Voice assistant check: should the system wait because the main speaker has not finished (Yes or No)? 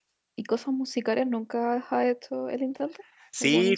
No